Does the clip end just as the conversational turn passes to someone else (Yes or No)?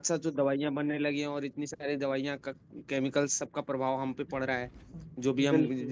No